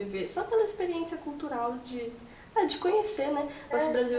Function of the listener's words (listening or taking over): listening